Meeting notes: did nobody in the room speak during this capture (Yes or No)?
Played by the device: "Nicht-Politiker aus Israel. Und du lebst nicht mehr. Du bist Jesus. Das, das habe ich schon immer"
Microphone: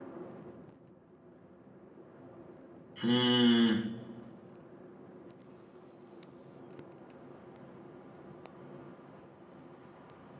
No